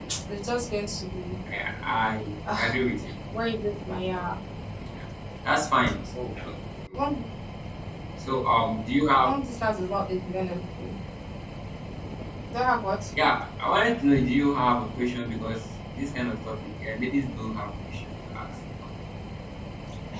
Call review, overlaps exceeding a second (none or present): none